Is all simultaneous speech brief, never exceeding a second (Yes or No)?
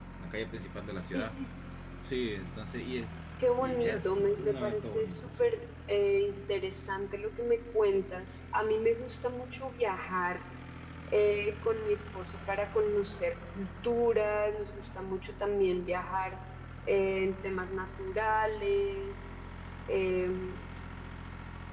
No